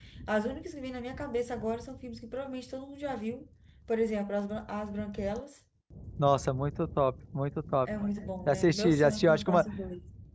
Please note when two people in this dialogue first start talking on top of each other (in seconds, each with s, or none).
8.4 s